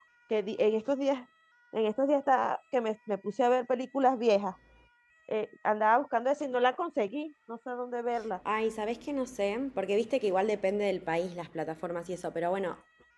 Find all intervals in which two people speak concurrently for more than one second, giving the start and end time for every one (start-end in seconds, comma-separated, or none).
none